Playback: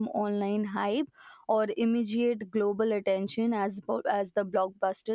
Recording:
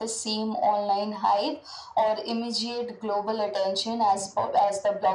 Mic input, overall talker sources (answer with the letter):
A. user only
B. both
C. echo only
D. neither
C